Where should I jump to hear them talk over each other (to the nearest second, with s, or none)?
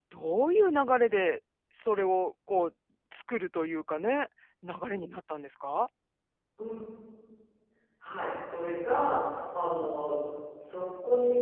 none